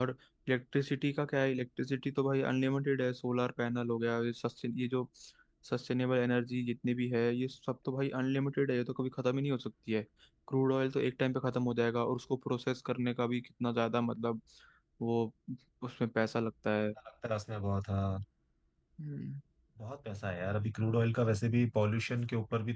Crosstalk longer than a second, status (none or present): none